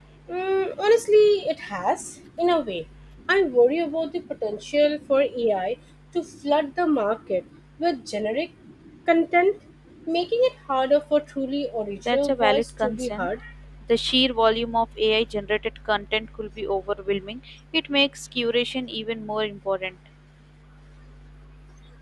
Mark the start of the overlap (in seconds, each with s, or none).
12.1 s